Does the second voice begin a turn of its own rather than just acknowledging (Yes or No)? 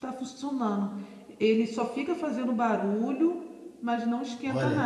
Yes